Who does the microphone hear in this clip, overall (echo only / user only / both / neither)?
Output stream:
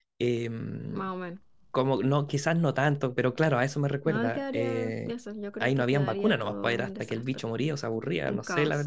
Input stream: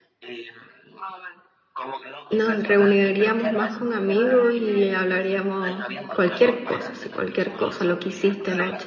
both